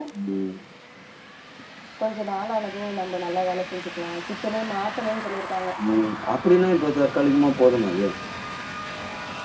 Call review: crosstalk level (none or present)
none